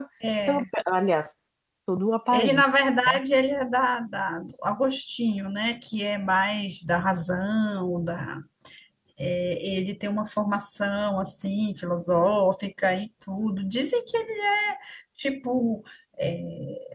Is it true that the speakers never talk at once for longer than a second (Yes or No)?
Yes